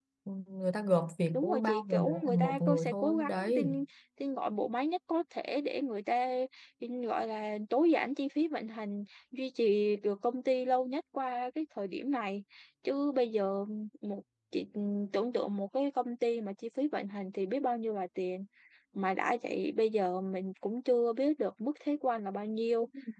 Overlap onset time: 1.3 s

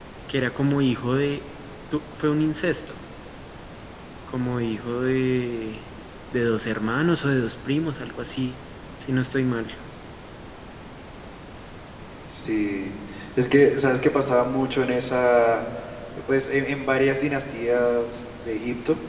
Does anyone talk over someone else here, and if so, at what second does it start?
none

